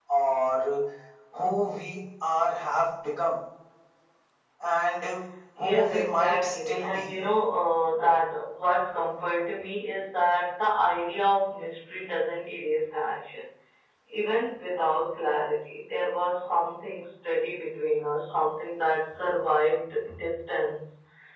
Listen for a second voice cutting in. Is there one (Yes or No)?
Yes